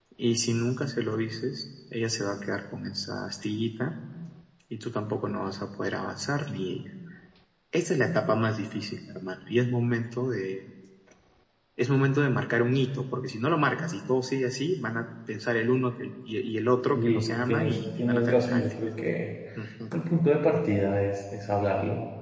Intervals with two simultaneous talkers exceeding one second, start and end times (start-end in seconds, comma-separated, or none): 16.9-18.6